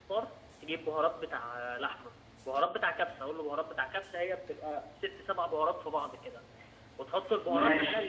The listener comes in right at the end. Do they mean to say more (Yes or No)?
No